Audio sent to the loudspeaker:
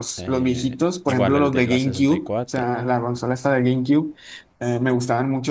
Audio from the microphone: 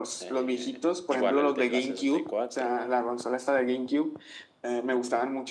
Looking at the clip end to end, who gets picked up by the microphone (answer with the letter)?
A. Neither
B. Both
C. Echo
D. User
C